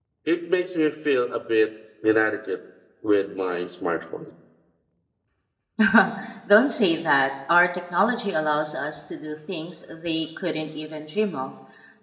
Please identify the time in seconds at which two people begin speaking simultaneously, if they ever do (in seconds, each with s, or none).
none